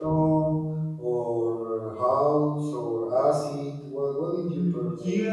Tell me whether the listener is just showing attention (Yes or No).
No